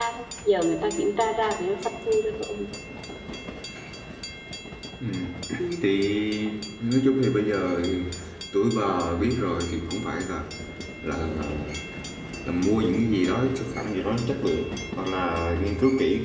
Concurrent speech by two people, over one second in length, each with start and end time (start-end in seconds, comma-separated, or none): none